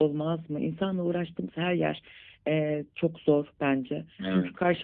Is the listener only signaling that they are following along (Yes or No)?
Yes